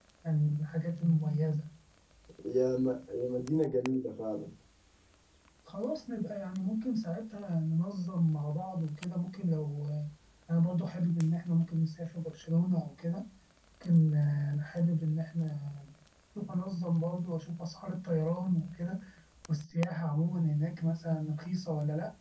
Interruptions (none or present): none